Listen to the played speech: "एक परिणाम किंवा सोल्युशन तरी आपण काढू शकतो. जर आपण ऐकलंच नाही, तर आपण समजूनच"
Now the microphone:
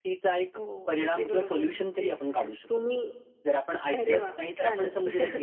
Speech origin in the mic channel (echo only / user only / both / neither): both